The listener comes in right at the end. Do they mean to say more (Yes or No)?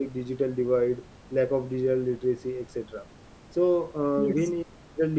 No